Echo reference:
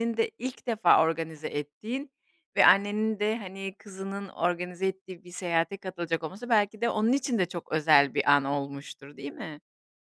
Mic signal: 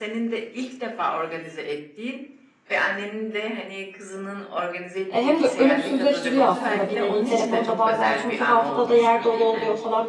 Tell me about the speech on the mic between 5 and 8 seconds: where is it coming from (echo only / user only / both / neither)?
both